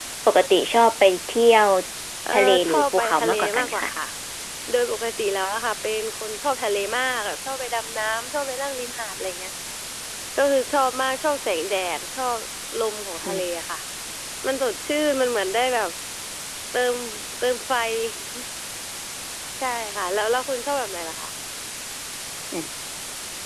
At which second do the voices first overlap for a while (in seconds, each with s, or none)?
2.3 s